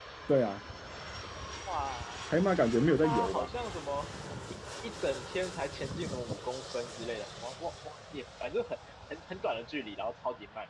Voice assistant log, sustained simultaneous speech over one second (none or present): none